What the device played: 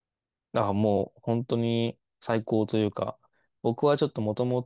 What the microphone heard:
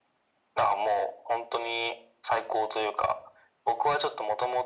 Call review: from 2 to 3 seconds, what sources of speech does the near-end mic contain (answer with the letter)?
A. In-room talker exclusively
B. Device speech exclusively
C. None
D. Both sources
B